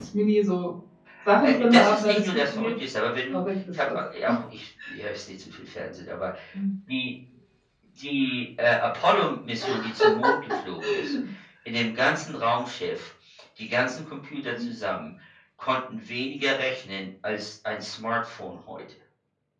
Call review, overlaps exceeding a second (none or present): present